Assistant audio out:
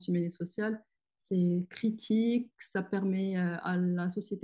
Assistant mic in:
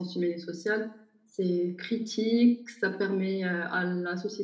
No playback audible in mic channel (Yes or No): No